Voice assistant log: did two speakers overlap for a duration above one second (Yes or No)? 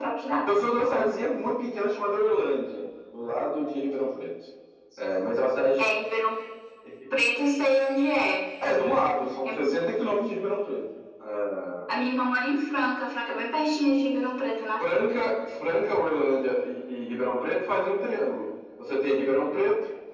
No